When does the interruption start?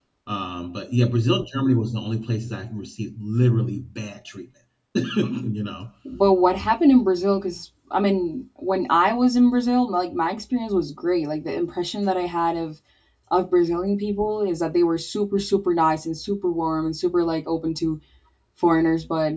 none

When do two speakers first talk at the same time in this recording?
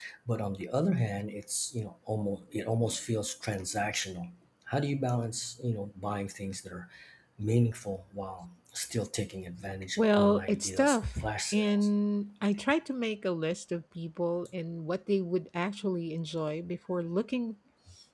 10.0 s

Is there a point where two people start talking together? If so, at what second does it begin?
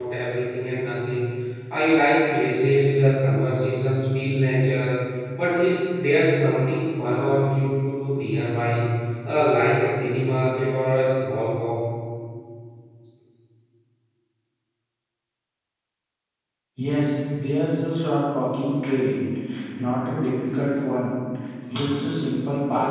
none

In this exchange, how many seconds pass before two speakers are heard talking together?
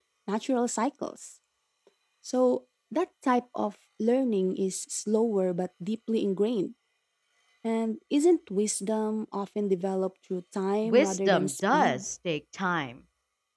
10.8 s

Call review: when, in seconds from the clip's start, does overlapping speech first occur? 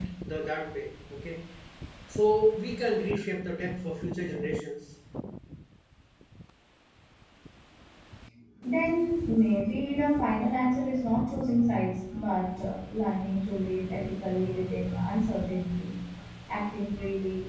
none

